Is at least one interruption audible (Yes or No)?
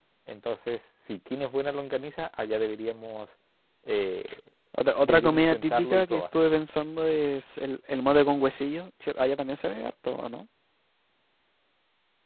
Yes